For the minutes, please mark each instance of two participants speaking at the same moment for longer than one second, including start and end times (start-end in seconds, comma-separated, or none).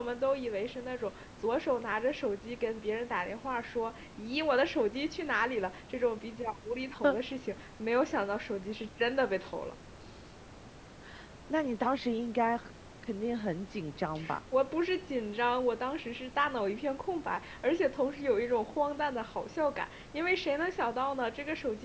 none